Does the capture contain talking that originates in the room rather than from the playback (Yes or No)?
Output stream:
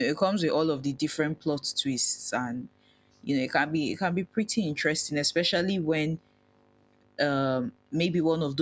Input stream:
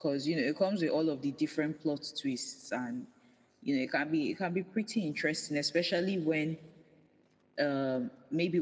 No